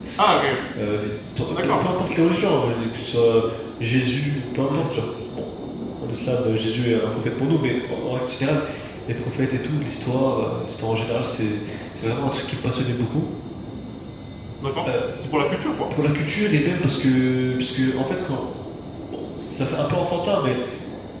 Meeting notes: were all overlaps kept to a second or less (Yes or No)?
Yes